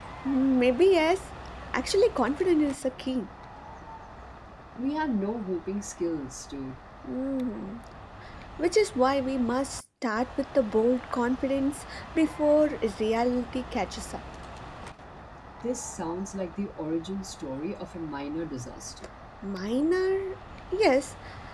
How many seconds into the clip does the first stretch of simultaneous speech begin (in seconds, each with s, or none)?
none